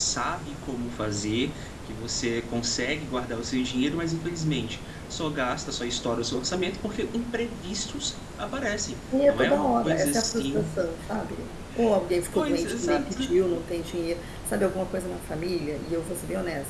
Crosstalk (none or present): present